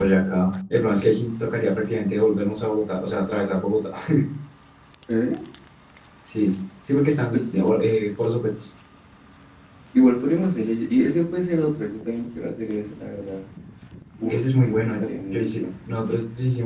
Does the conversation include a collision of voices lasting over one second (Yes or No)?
Yes